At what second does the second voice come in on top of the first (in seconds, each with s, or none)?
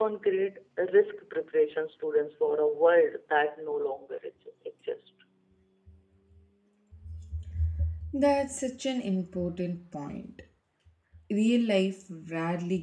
none